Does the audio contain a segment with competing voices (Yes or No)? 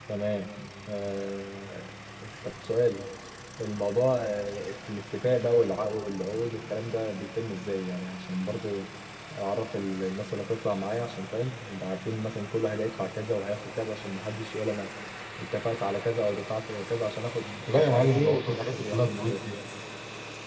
Yes